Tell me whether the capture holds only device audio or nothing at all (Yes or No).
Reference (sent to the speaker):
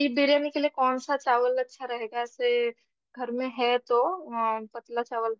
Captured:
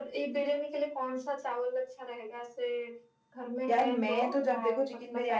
No